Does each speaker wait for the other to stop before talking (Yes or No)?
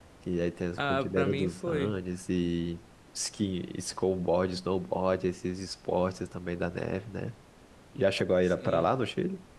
No